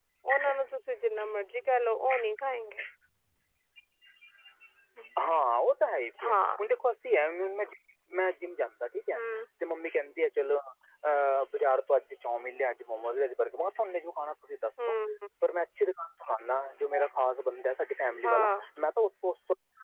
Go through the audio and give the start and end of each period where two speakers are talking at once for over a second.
none

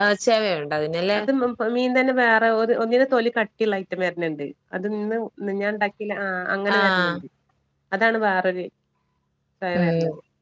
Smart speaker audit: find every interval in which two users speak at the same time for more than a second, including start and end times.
none

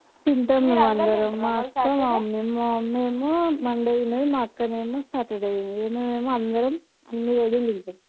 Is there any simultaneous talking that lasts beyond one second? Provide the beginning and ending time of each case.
0.6-2.2

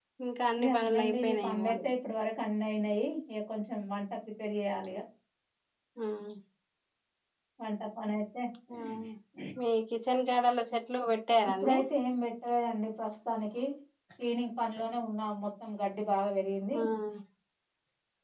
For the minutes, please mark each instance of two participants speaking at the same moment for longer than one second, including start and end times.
0.6-1.9

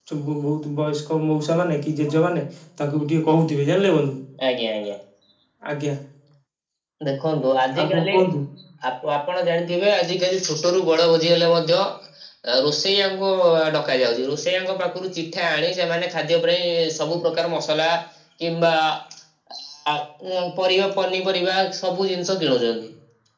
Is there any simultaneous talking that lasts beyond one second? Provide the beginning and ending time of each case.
none

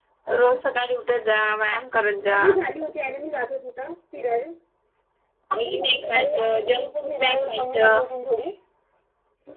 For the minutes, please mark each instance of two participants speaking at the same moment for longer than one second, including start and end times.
6.1-8.0

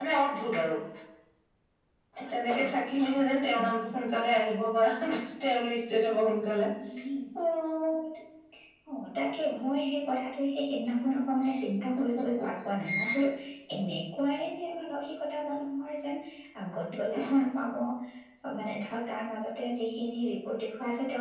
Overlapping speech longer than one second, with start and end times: none

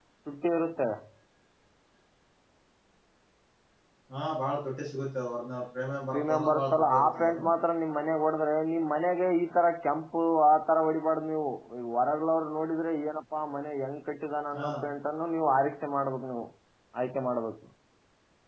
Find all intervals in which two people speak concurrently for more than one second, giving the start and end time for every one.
6.1-7.4

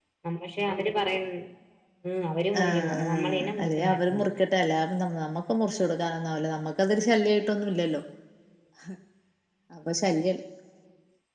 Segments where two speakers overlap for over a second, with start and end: 2.6-4.3

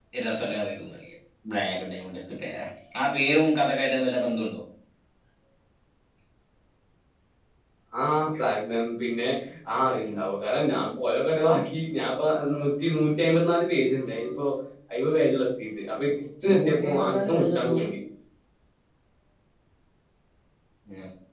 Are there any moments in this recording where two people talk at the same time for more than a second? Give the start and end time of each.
16.5-17.8

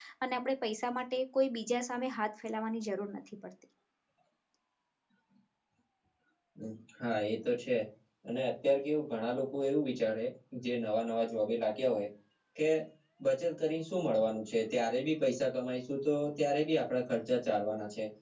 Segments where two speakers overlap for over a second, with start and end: none

